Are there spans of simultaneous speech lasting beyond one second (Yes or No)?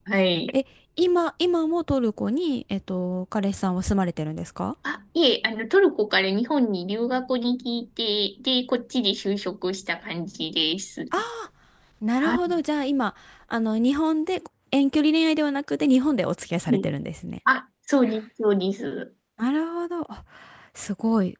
No